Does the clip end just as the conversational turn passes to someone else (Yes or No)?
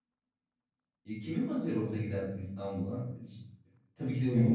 No